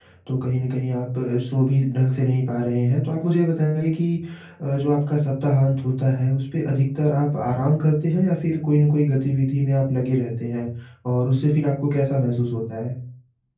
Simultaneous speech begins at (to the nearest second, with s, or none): none